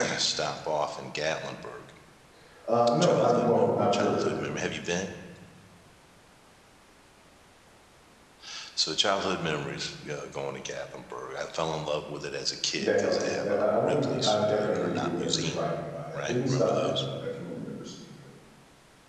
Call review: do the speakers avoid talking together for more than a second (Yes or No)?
No